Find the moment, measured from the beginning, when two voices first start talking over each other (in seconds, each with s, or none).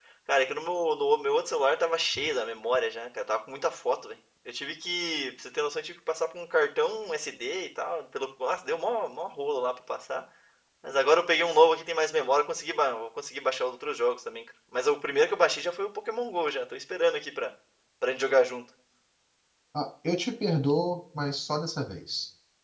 none